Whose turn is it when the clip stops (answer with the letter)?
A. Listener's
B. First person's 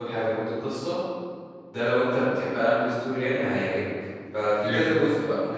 B